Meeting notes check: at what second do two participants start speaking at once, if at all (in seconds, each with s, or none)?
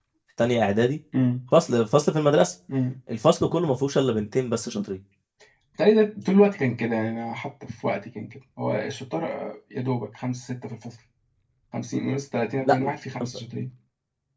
none